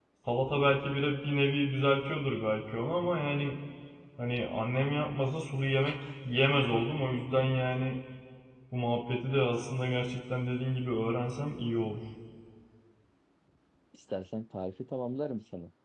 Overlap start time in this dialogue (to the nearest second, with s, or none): none